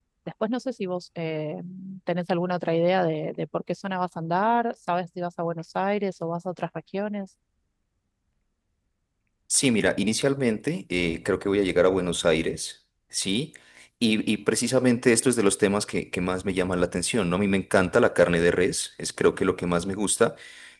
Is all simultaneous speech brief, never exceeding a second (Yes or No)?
Yes